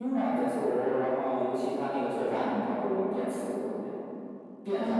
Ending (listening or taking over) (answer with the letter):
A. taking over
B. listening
A